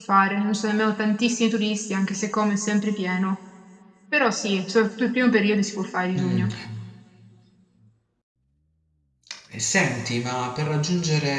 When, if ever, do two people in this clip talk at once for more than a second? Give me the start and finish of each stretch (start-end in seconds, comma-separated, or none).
none